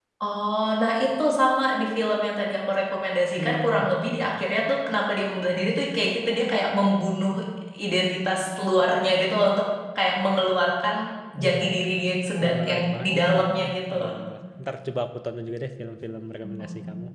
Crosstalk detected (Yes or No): Yes